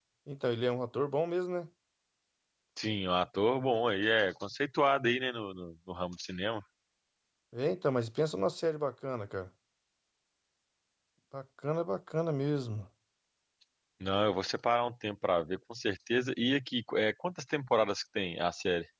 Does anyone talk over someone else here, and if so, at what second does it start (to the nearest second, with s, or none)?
none